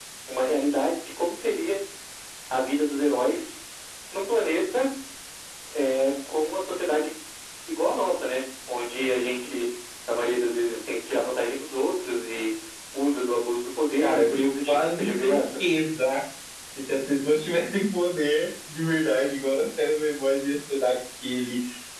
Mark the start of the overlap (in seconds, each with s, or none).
14.0 s